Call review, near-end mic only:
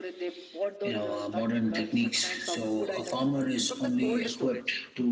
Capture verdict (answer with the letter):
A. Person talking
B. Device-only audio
B